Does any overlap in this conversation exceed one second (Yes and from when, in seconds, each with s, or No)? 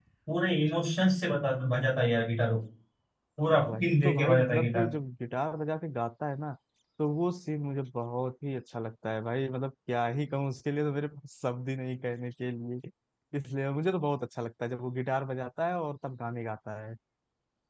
Yes, from 3.6 s